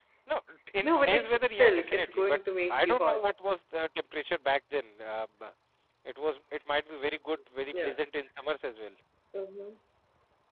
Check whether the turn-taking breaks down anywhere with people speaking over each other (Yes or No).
Yes